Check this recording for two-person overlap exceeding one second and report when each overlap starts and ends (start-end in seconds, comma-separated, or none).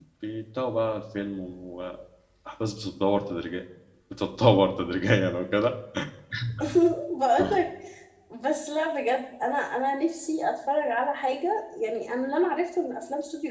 none